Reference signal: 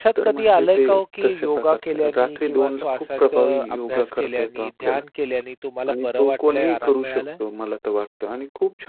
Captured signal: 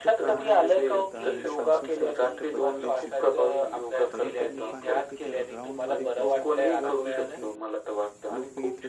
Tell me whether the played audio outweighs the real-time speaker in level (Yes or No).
Yes